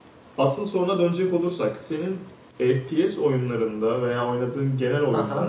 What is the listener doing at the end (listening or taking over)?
listening